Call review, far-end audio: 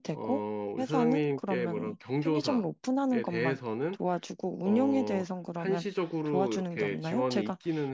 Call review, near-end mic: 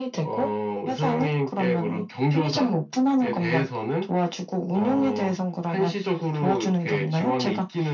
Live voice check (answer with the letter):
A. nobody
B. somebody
A